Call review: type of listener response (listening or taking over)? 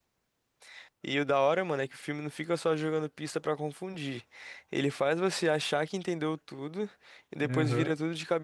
listening